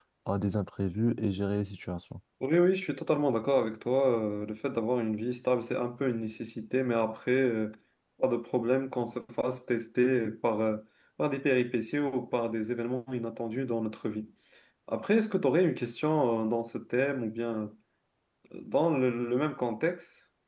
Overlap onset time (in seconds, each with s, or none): none